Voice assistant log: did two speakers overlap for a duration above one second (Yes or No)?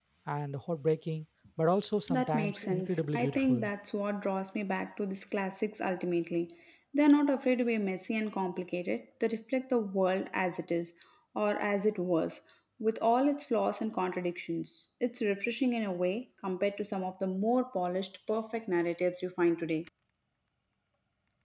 Yes